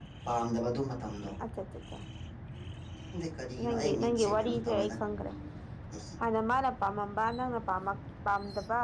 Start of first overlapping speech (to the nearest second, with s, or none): 4 s